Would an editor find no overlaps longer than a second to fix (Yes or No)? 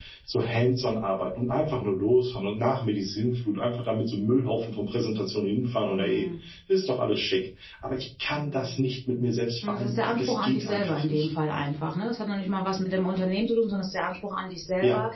No